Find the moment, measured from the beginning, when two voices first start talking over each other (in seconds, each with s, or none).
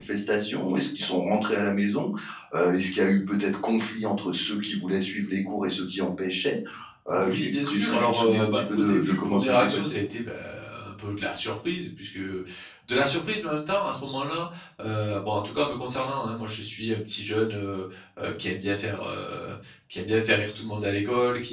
7.1 s